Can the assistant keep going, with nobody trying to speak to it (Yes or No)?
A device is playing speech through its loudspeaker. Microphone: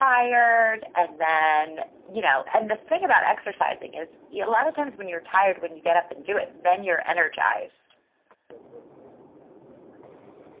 Yes